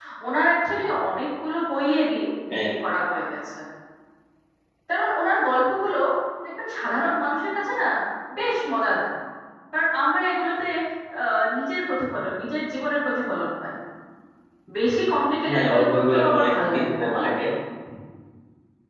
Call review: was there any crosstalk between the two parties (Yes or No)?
Yes